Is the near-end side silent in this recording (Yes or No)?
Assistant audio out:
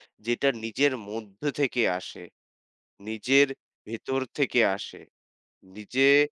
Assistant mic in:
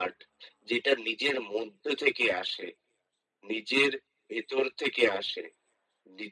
Yes